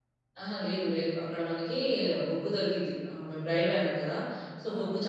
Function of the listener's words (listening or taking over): listening